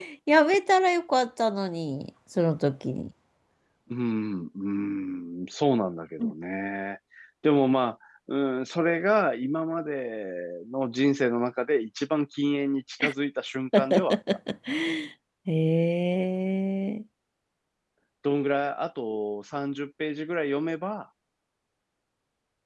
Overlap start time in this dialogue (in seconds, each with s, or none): none